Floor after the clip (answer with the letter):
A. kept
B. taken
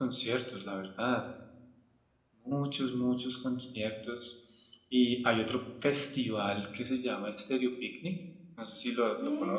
B